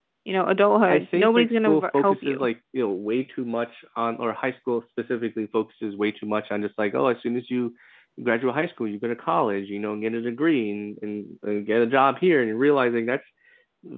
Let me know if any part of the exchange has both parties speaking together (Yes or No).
Yes